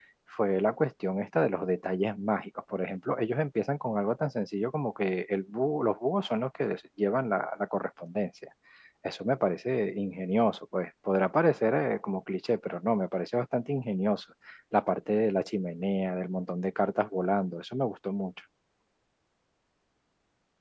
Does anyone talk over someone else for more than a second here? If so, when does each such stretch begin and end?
none

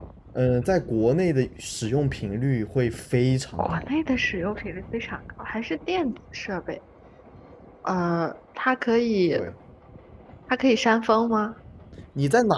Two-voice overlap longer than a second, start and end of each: none

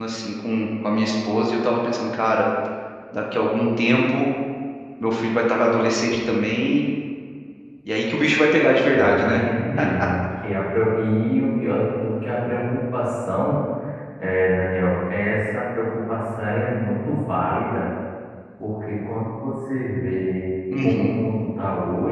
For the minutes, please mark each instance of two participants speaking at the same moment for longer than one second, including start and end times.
none

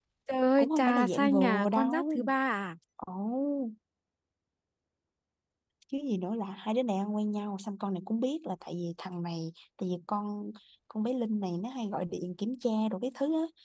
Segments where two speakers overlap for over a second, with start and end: 0.6-2.2

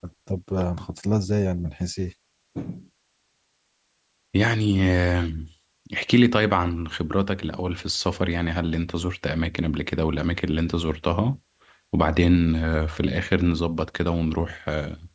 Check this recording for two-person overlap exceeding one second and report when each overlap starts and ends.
none

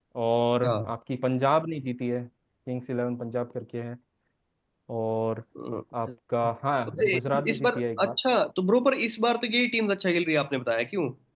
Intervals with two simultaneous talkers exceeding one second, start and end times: 6.9-8.2

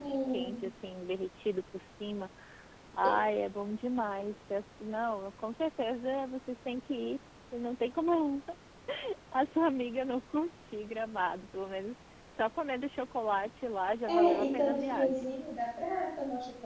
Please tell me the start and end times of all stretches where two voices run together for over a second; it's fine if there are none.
14.1-15.3

